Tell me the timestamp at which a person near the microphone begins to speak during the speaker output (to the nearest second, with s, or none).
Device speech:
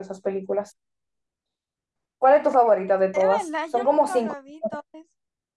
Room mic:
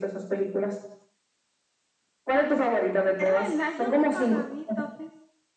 none